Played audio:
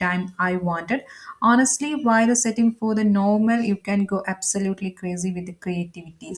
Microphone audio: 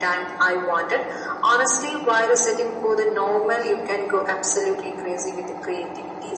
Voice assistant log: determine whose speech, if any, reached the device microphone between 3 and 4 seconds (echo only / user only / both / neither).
echo only